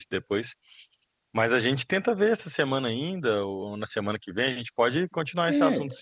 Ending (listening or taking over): taking over